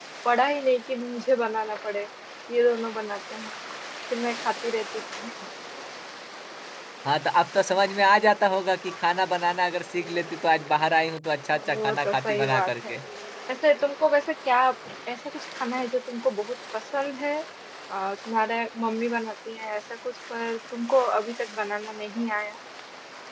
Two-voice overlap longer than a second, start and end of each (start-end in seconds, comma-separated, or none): 11.5-12.9